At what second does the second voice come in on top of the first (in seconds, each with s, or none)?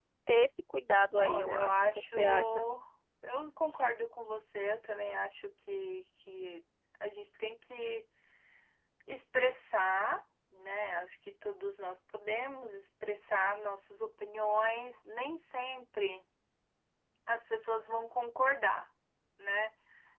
1.2 s